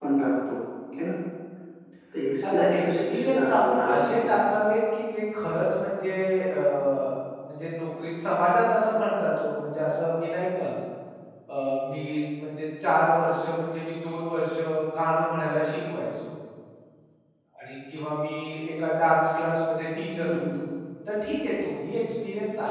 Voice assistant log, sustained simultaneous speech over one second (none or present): present